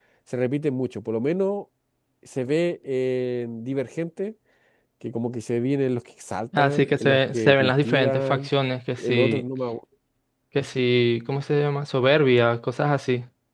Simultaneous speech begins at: 6.6 s

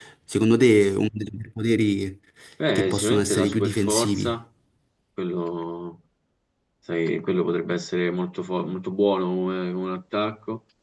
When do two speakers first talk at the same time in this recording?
2.8 s

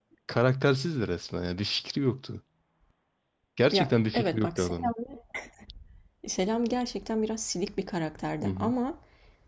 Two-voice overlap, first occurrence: 3.7 s

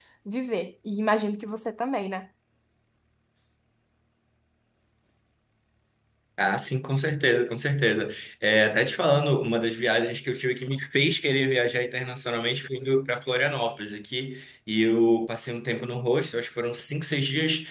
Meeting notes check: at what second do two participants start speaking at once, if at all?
none

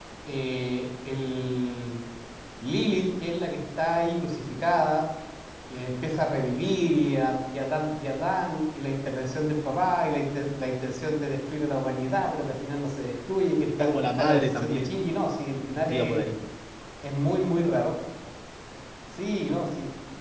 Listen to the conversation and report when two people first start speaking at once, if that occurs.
13.7 s

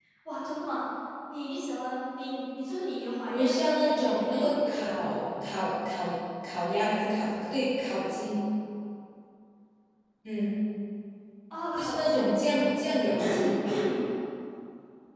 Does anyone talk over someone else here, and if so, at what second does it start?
3.3 s

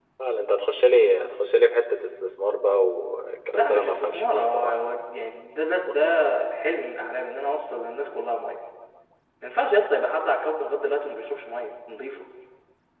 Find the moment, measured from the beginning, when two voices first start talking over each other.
3.5 s

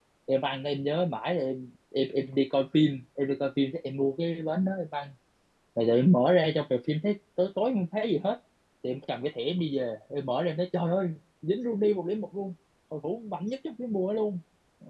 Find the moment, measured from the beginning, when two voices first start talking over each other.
none

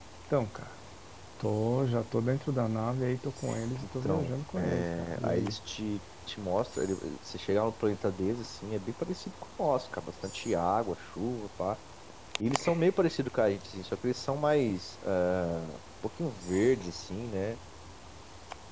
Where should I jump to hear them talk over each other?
4.0 s

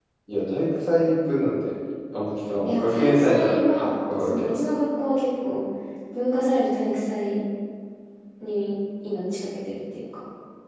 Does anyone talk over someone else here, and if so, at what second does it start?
2.6 s

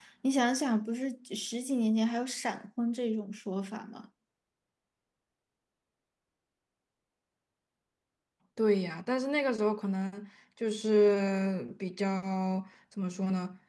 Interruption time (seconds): none

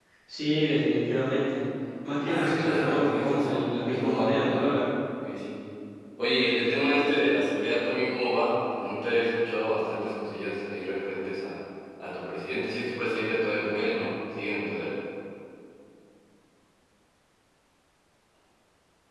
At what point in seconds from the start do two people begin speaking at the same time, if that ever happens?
2.2 s

